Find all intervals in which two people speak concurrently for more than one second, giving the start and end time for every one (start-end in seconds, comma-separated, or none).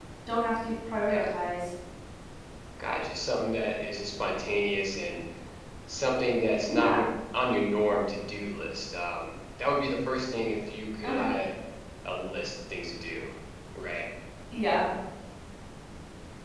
none